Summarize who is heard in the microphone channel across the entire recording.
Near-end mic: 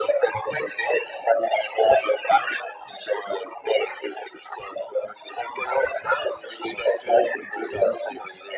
echo only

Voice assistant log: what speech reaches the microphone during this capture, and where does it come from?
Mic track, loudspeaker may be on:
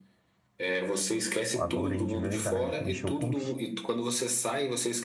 both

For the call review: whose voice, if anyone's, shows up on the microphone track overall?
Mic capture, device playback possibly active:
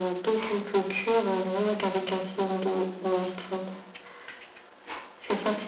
echo only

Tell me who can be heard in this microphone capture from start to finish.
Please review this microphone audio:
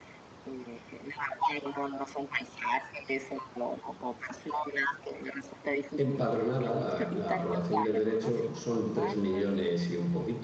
both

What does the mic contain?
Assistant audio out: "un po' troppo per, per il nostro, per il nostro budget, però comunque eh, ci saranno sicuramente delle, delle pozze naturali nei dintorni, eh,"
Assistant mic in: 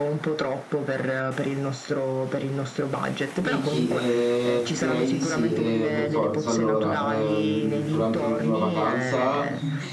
both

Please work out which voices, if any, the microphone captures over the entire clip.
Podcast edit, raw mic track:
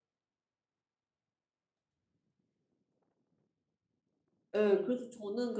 user only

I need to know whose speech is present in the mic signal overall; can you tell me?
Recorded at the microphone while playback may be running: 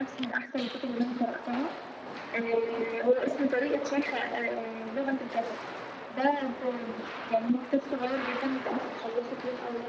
echo only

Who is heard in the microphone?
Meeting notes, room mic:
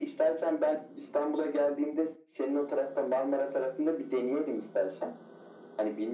echo only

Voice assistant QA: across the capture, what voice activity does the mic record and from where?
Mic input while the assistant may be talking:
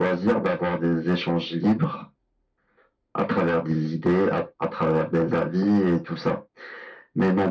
echo only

